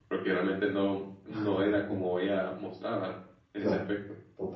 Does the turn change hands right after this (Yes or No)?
Yes